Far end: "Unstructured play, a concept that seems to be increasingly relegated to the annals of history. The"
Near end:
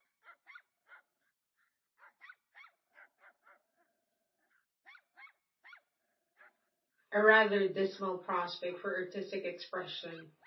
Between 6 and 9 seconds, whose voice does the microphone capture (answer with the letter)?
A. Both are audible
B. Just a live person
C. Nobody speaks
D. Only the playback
B